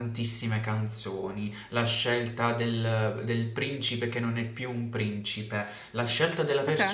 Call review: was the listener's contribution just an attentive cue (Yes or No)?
Yes